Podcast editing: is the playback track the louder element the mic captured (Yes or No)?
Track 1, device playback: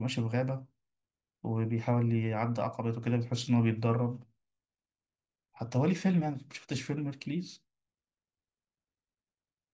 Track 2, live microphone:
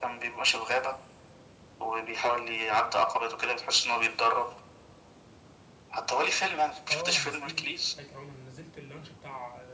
Yes